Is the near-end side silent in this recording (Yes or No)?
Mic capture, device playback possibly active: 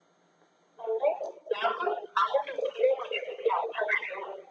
Yes